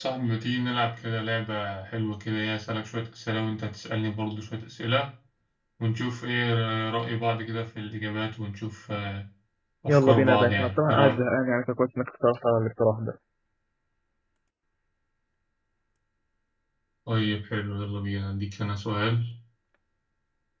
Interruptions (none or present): present